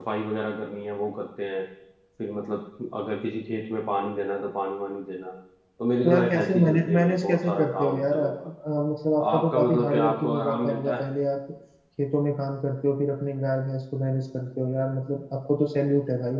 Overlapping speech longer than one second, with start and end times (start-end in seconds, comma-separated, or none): 6.0-8.3, 9.3-11.1